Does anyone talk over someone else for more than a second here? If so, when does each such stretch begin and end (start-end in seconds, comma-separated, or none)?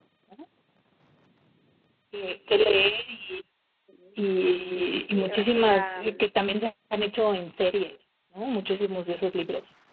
4.7-6.3